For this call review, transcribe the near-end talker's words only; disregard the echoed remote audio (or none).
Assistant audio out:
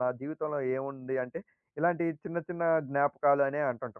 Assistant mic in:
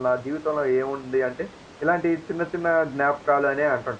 none